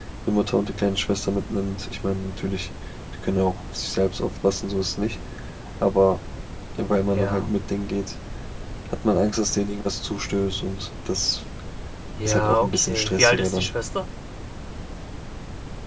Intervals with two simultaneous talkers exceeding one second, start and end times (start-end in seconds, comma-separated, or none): 12.2-13.7